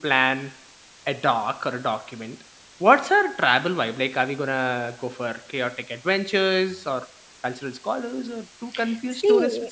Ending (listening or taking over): taking over